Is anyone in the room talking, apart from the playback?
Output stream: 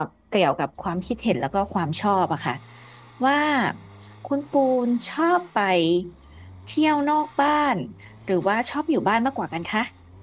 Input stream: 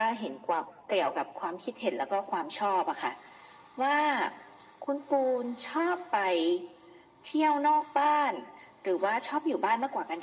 No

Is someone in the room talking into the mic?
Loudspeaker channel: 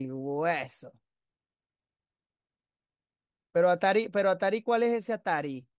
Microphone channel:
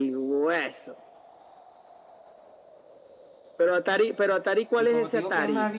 Yes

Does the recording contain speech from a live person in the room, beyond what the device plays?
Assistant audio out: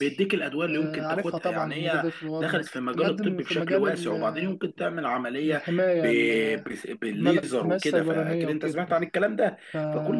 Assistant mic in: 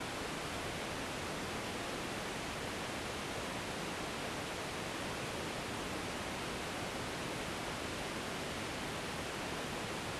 No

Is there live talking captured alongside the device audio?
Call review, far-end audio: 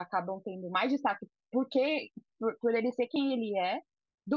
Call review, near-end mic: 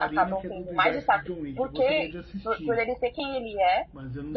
Yes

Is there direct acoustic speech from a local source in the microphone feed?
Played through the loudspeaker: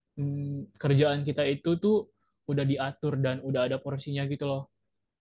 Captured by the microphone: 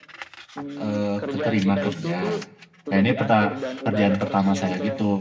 Yes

